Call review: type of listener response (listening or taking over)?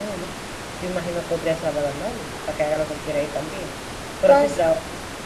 listening